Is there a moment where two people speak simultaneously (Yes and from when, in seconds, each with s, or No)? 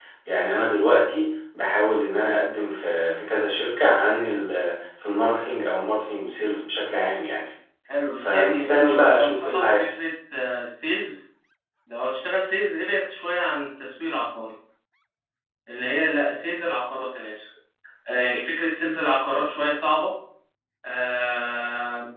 Yes, from 8.2 s